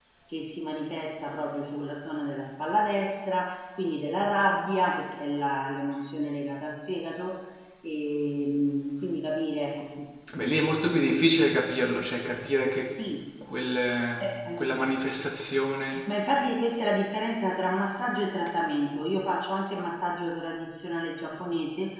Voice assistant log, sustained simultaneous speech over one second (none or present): none